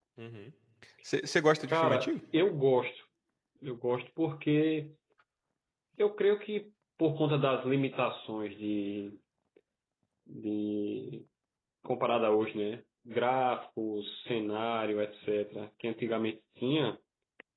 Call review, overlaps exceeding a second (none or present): none